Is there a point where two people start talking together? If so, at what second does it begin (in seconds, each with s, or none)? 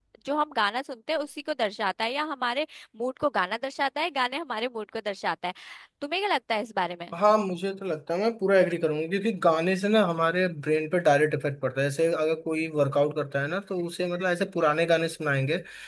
none